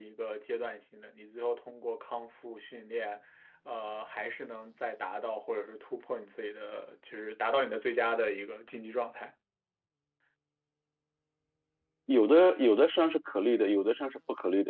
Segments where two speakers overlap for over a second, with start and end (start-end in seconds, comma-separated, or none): none